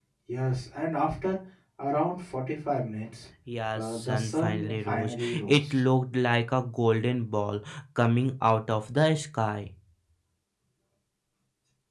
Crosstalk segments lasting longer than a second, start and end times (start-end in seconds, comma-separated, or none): 3.7-5.7